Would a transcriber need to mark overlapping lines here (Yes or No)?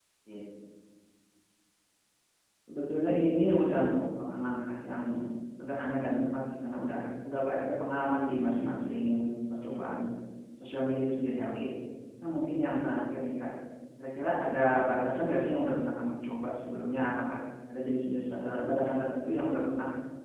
No